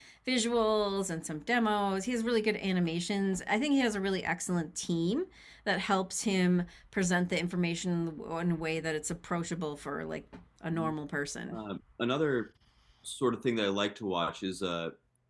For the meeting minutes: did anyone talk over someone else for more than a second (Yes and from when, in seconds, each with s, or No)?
No